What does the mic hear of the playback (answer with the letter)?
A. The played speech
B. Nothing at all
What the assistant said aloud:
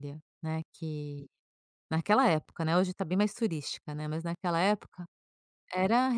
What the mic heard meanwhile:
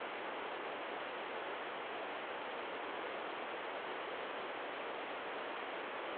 B